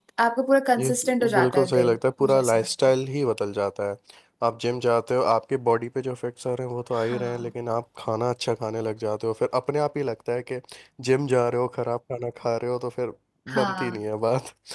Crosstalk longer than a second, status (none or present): present